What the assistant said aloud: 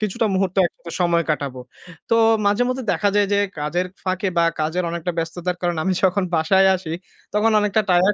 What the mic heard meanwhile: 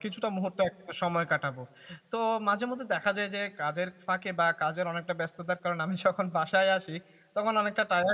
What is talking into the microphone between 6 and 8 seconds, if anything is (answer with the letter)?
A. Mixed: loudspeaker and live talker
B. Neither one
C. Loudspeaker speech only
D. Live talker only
C